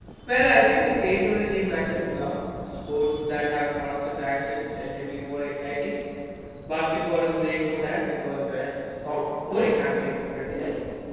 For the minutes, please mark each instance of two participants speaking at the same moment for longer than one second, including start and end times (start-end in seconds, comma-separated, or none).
none